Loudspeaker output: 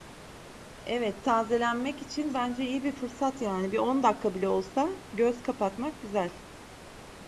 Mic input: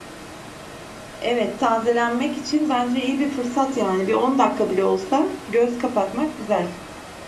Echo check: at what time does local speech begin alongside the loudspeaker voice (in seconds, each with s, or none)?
none